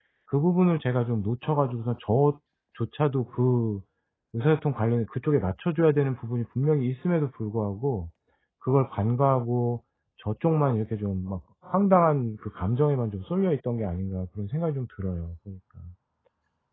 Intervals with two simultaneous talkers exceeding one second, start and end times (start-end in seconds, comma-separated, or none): none